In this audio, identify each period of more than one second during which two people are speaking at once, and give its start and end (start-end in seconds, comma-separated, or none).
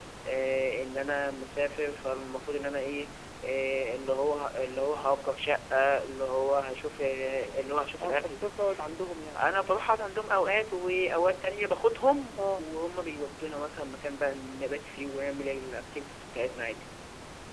none